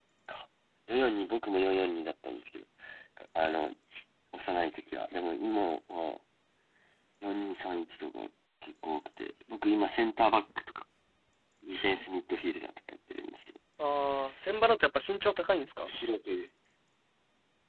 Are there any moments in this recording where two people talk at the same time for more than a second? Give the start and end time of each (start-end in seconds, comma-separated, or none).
none